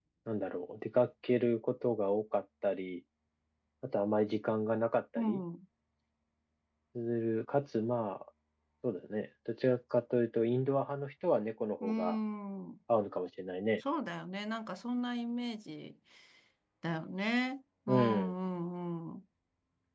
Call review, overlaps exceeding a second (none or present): none